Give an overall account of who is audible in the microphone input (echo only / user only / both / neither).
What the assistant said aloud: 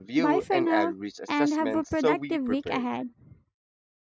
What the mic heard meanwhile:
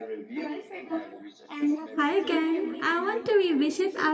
both